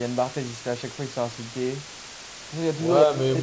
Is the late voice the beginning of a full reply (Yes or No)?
Yes